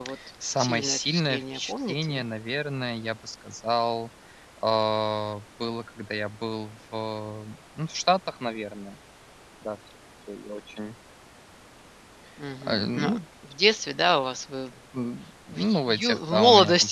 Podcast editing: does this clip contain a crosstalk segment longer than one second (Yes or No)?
Yes